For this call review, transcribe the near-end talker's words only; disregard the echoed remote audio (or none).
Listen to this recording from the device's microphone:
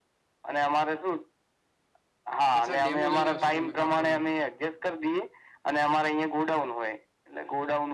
અચ્છા ડેમો લઈને આવશો તમે કાપડ નો